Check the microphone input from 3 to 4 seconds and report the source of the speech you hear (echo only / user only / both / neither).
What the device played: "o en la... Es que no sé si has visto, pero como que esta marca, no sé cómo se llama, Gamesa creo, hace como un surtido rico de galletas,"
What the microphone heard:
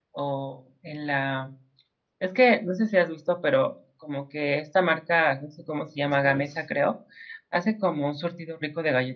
echo only